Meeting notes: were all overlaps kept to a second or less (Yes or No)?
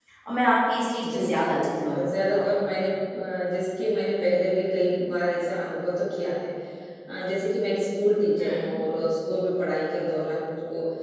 No